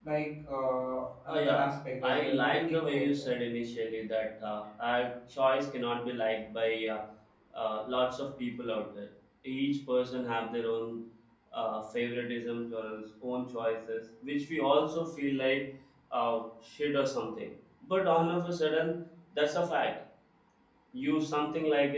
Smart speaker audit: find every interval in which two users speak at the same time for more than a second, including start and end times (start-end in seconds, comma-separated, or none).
2.0-3.3